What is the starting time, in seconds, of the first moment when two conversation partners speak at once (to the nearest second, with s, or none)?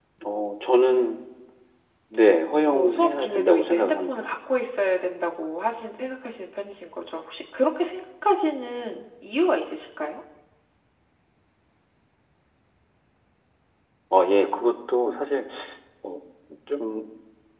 3 s